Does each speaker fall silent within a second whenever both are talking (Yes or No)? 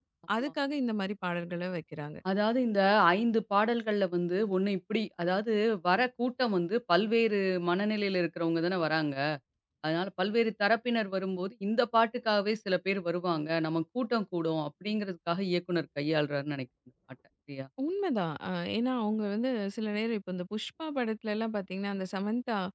Yes